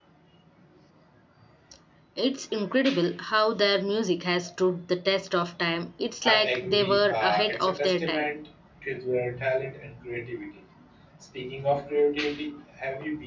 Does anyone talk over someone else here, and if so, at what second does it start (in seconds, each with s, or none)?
6.2 s